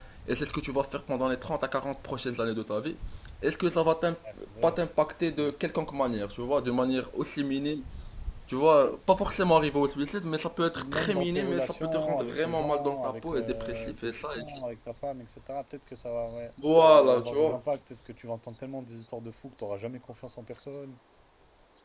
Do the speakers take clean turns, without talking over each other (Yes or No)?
No